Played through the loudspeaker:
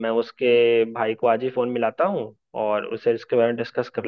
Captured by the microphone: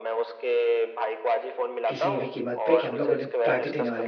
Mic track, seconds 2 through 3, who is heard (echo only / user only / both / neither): both